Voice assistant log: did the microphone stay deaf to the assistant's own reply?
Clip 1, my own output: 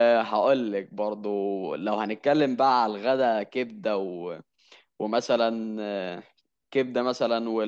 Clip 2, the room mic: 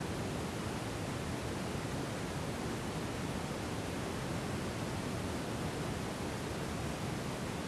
Yes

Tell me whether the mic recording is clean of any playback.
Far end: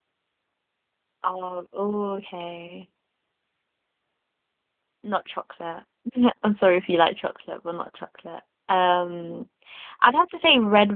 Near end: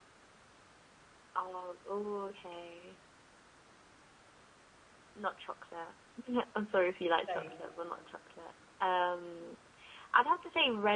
No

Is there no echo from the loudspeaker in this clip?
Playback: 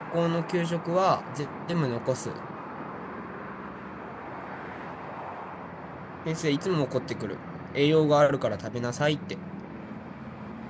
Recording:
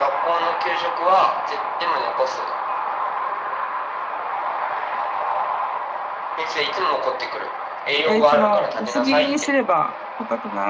No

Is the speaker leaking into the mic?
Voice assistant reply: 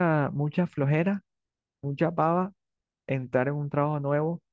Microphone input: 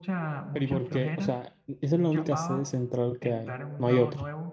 Yes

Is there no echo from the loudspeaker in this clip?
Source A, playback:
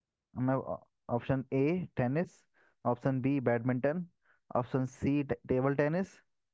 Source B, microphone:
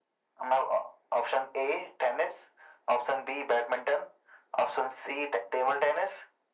No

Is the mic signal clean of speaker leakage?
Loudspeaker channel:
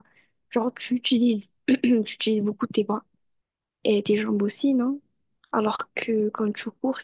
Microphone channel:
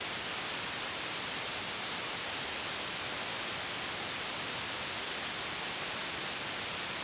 Yes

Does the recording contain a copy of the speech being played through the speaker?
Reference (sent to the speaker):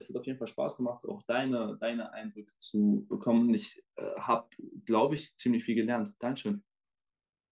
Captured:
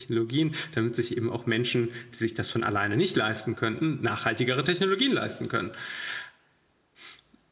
No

